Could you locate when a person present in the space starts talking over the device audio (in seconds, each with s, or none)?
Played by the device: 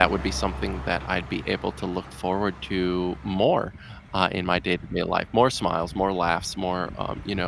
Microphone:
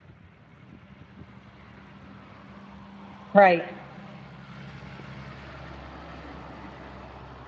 3.3 s